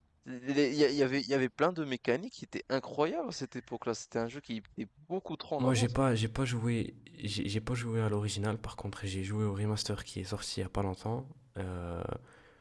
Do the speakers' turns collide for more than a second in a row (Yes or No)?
No